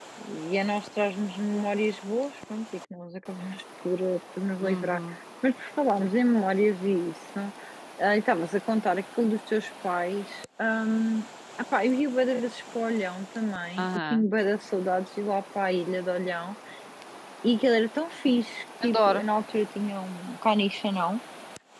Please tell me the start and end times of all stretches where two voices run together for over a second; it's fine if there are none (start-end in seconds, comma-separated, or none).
none